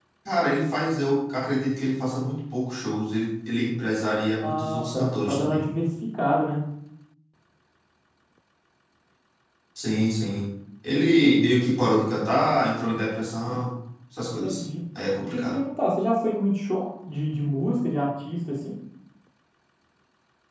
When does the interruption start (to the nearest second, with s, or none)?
4 s